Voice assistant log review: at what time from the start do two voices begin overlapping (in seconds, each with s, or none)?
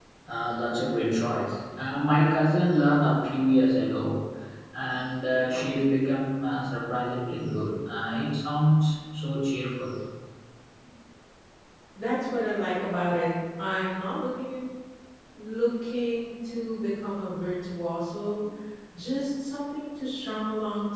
none